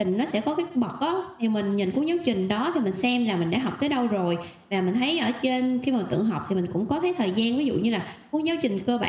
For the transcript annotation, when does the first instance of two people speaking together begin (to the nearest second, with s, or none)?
none